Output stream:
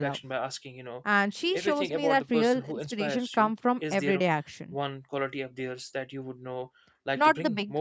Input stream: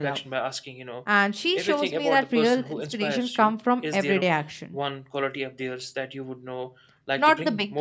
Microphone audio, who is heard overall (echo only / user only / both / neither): echo only